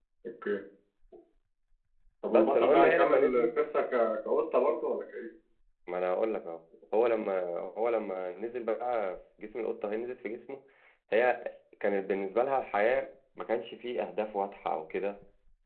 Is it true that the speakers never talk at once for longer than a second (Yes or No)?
No